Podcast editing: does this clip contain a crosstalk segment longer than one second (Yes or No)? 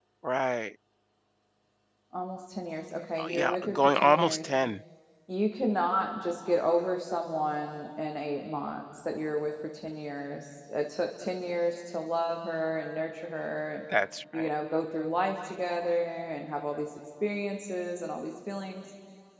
Yes